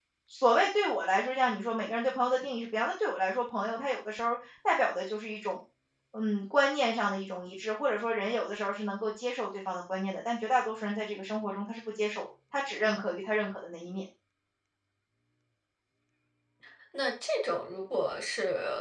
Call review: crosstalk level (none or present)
none